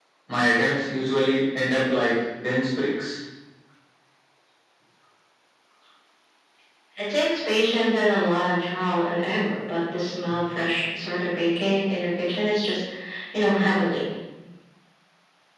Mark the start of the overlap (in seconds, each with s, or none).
none